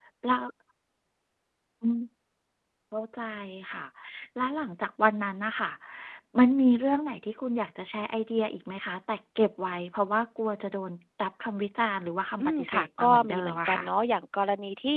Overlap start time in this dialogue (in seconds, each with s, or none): 12.4 s